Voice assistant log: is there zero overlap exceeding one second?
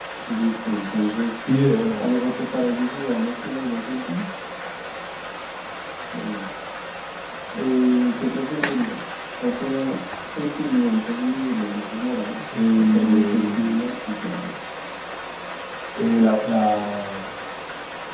No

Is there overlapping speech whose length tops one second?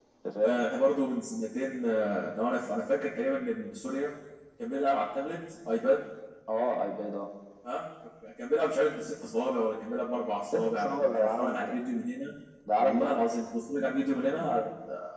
Yes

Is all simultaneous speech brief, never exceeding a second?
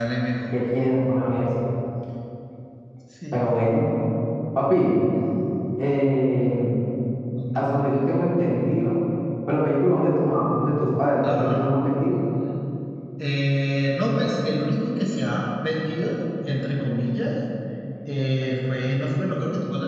Yes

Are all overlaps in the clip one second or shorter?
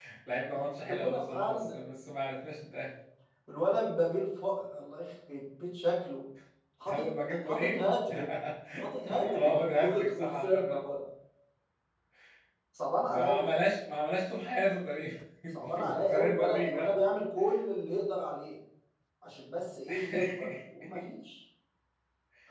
No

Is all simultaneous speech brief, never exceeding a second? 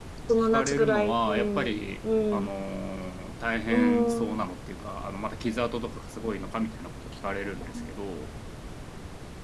No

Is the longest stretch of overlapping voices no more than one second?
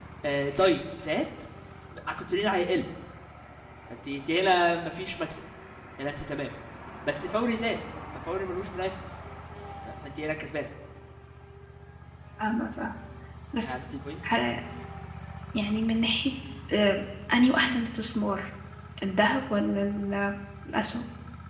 Yes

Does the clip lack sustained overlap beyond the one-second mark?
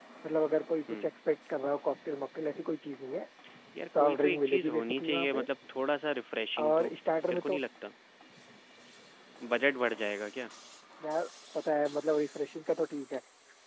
No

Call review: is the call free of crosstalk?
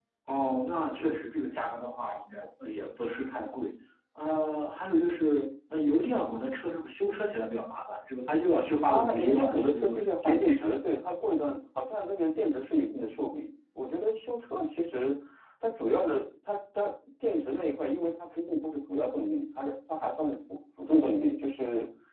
No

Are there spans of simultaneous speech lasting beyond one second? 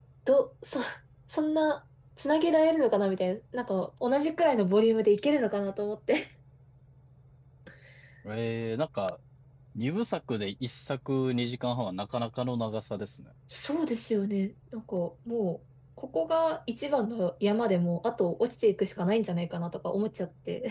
No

